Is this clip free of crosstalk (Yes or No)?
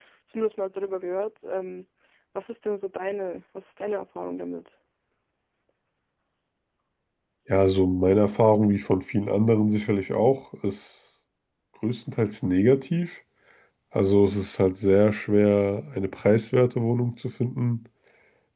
Yes